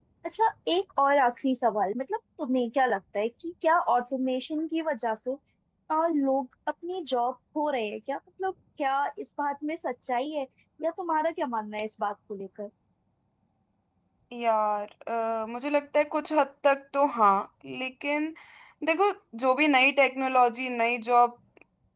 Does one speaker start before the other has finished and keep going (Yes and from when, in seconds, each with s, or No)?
No